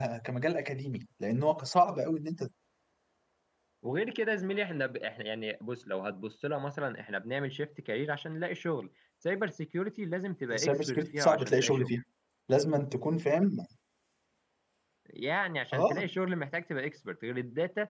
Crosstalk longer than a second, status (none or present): present